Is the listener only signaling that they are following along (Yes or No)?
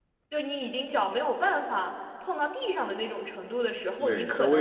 No